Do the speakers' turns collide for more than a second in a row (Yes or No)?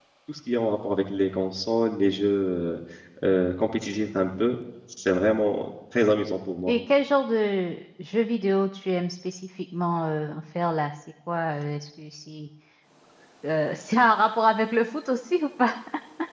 No